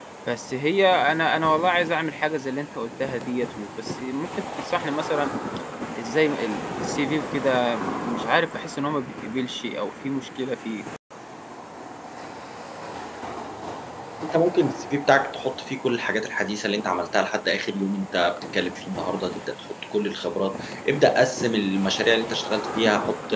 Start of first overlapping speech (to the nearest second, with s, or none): none